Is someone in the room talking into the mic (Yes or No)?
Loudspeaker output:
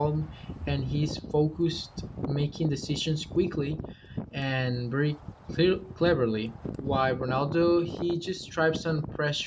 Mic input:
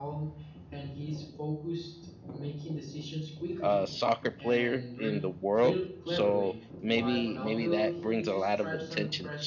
Yes